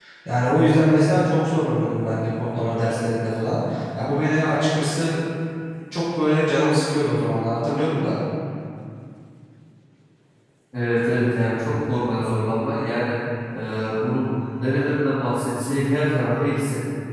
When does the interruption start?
none

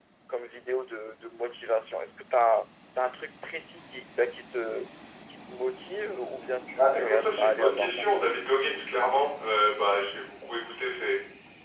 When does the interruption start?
6.8 s

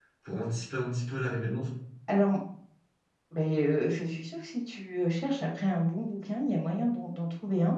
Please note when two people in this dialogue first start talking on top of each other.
none

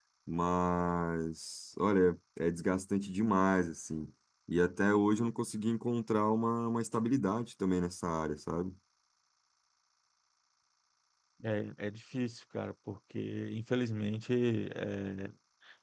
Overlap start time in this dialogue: none

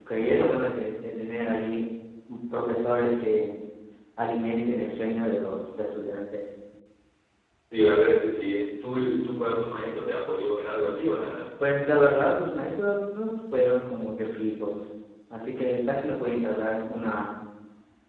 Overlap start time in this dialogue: none

